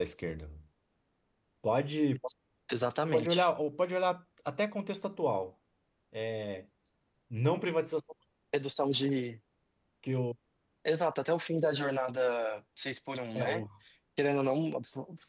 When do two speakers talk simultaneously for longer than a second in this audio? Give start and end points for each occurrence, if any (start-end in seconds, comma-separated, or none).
none